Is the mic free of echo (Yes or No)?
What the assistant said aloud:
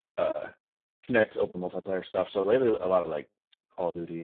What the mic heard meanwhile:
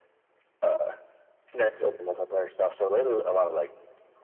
No